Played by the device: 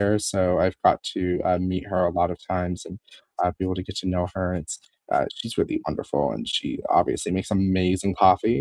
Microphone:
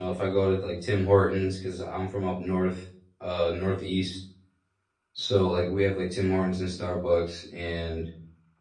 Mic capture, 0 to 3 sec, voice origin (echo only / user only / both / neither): user only